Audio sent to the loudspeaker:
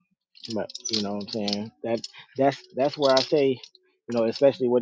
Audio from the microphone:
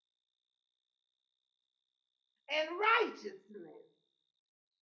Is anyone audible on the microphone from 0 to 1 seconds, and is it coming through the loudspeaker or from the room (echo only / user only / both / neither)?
neither